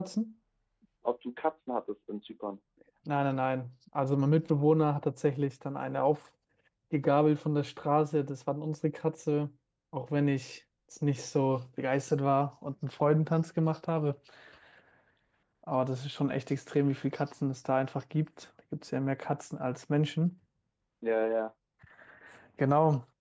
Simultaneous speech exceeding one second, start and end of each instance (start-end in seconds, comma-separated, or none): none